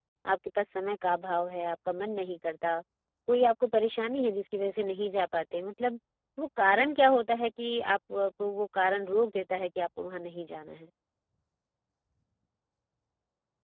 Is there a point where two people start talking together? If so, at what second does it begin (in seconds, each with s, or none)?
none